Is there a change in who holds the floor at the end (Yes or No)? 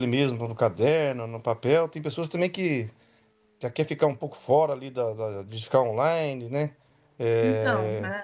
No